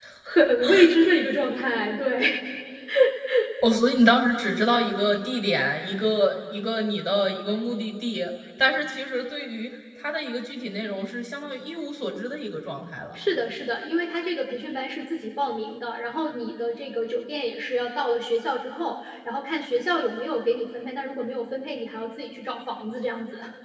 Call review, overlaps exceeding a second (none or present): none